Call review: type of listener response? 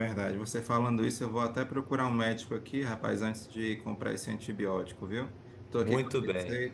listening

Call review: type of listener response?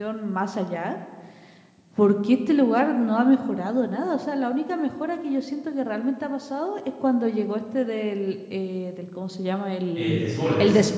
listening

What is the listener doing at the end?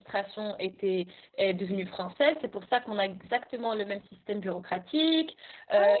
listening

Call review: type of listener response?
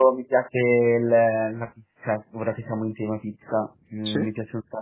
listening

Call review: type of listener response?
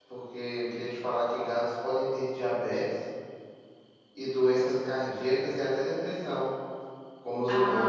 taking over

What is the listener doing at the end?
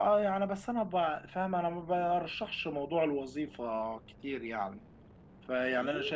listening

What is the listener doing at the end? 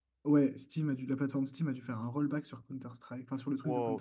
taking over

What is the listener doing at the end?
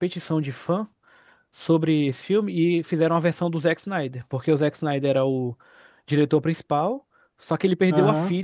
listening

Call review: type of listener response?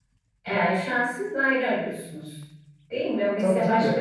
taking over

